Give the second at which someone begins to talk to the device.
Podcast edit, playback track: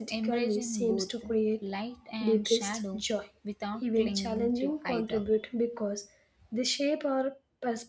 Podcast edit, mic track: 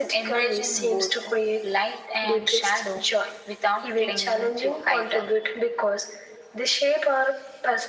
none

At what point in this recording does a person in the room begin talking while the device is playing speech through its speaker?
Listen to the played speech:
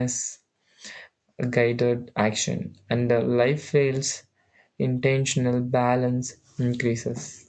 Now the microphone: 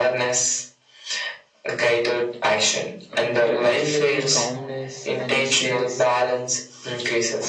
3.1 s

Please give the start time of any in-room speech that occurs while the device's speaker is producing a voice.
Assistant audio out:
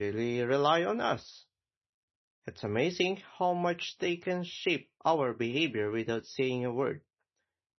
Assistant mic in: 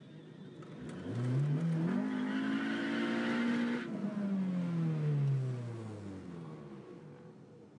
none

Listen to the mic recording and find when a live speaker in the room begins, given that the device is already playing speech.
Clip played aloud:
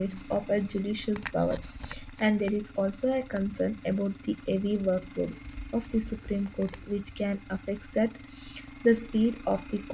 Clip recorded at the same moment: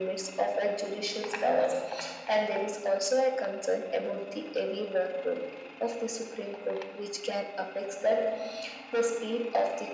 none

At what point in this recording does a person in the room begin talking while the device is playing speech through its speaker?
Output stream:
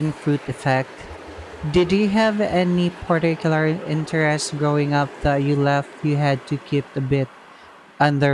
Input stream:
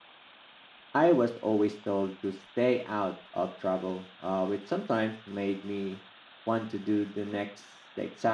0.9 s

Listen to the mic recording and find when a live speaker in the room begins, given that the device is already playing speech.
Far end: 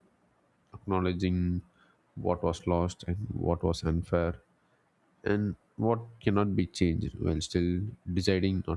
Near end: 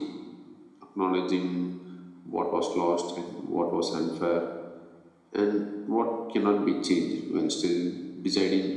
none

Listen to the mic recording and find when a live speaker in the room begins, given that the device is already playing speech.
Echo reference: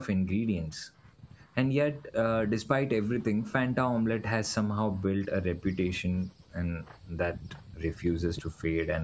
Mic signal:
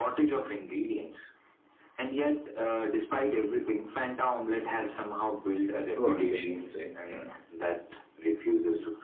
5.9 s

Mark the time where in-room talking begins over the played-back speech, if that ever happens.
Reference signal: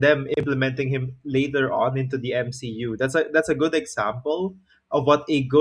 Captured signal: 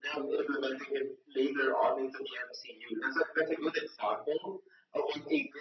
none

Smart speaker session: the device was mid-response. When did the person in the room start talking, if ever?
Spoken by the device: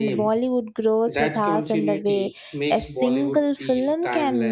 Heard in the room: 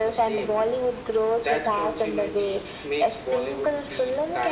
none

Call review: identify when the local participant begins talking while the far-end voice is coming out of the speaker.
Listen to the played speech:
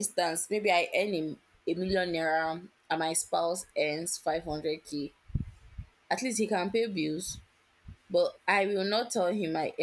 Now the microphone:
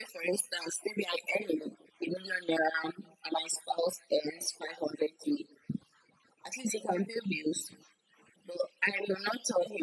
none

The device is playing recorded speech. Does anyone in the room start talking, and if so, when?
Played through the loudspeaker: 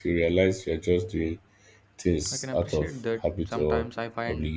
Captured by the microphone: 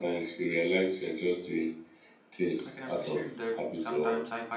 none

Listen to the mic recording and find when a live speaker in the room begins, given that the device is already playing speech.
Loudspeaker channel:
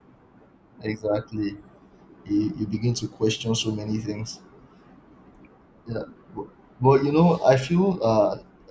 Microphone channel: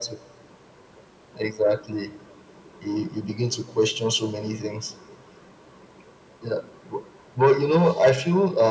none

